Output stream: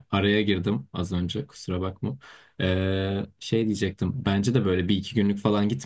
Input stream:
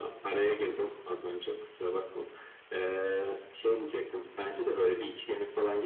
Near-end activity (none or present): none